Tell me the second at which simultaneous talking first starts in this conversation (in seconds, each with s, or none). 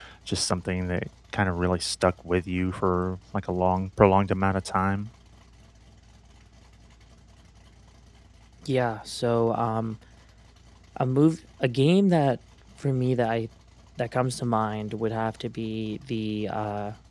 none